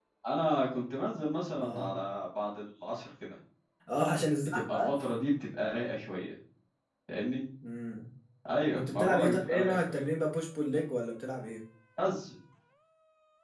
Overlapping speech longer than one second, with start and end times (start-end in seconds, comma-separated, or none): 8.8-10.0